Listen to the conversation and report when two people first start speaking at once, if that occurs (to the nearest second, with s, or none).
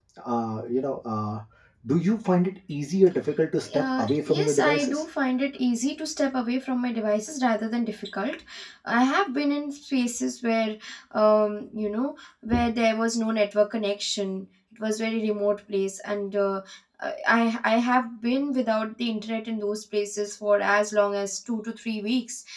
4 s